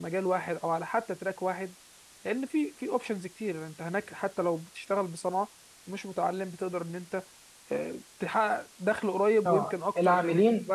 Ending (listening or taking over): taking over